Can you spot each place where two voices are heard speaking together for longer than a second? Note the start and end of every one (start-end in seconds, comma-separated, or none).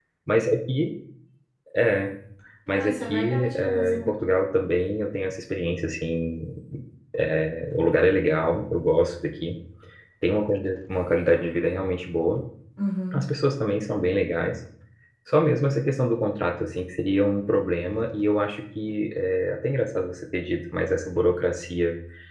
2.7-4.1